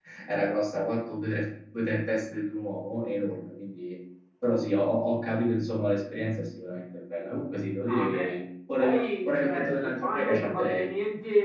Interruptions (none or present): present